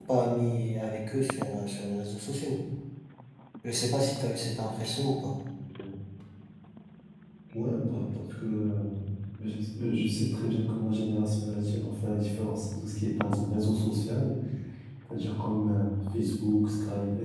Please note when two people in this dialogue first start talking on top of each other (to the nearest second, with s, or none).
none